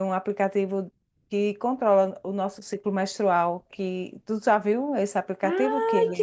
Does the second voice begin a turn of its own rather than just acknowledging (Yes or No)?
Yes